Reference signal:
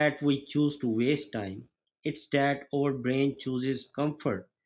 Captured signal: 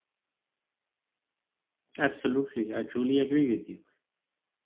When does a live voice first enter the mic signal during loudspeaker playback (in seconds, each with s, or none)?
2.0 s